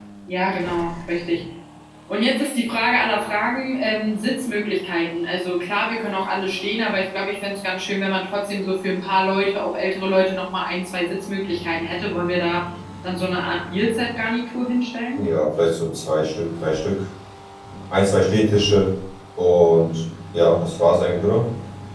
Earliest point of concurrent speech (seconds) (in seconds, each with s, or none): none